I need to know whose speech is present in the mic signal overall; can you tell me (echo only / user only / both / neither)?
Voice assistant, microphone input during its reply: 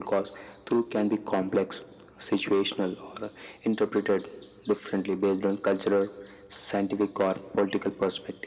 echo only